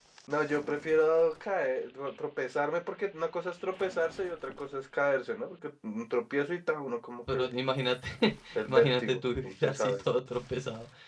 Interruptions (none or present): present